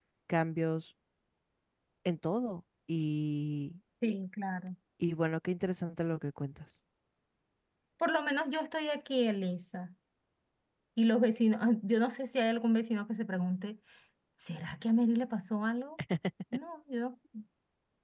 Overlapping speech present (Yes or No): No